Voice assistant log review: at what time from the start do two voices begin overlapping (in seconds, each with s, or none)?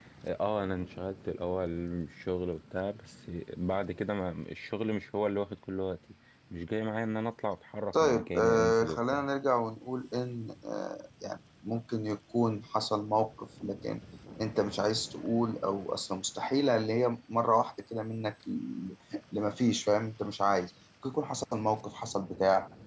7.9 s